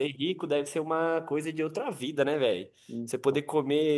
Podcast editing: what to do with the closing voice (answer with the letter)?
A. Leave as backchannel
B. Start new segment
A